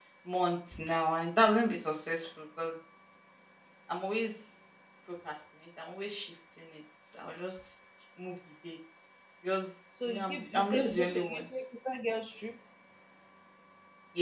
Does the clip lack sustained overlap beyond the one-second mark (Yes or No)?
No